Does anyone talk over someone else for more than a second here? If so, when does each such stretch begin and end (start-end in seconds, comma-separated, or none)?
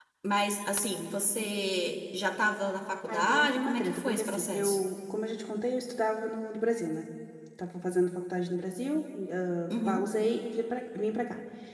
3.1-4.8